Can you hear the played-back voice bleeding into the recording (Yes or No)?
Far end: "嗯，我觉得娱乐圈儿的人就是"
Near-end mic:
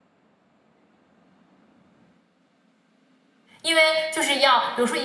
No